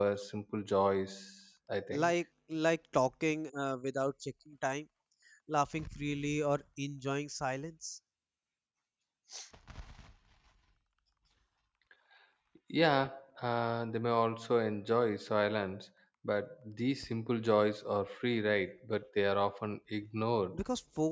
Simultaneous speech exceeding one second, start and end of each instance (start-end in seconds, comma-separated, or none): none